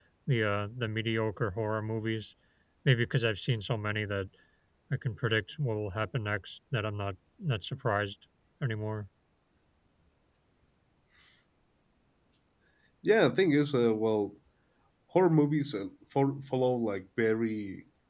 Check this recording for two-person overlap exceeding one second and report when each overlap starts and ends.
none

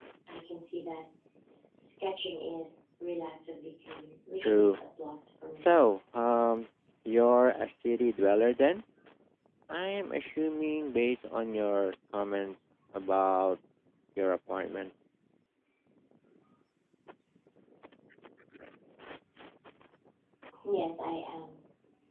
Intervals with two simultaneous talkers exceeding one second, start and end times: none

